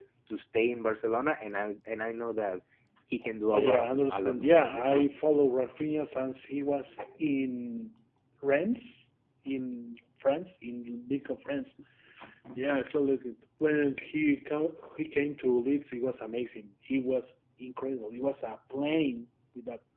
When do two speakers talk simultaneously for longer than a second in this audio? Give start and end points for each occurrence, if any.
3.5-5.1

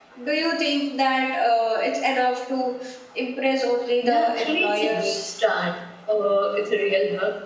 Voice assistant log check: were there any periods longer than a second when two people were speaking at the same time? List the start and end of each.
4.0-5.3

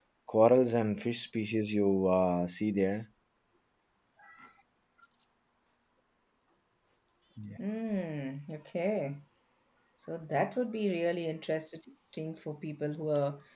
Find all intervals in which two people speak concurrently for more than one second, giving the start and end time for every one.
none

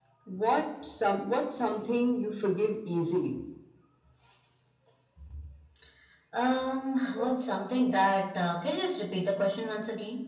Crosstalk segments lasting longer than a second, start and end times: none

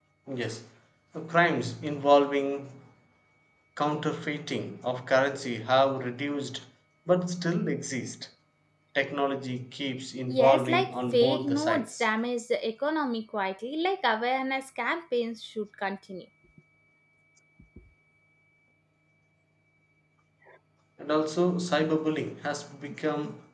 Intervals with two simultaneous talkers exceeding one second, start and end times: 10.3-12.0

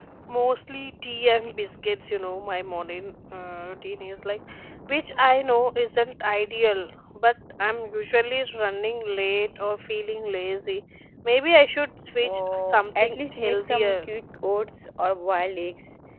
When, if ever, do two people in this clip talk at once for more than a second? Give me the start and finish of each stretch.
12.2-14.0

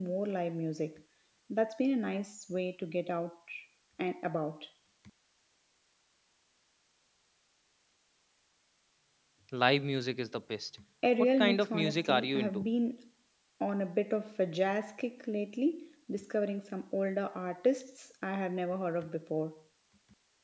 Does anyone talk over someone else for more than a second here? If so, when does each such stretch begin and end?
11.4-12.6

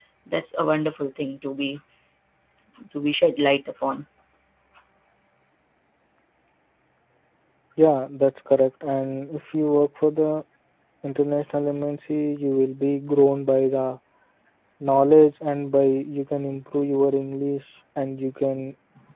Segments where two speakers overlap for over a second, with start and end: none

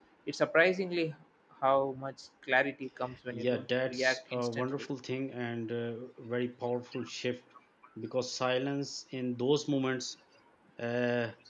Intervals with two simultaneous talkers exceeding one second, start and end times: 3.3-4.9

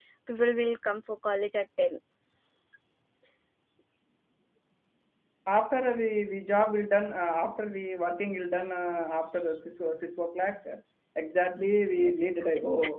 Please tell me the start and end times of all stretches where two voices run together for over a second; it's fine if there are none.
none

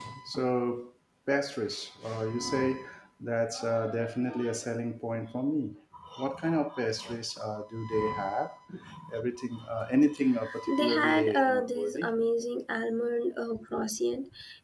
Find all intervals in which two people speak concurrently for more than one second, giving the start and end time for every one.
10.7-12.1

